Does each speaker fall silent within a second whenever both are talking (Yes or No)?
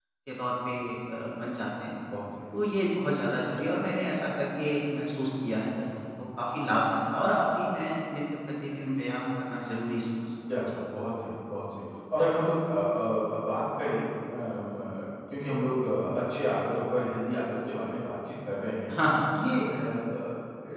Yes